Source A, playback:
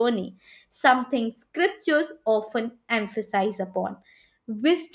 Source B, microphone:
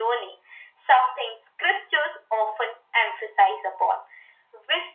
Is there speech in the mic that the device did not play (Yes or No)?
No